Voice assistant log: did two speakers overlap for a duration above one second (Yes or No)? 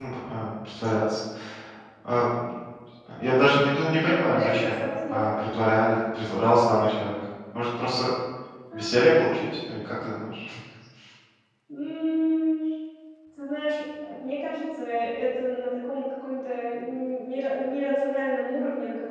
Yes